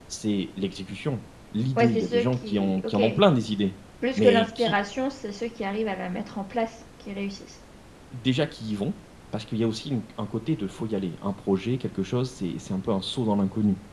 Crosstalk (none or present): present